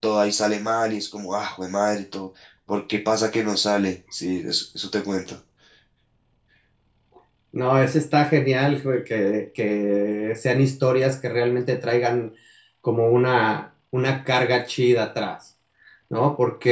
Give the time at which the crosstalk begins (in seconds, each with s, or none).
none